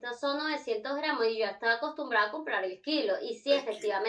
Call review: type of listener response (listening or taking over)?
listening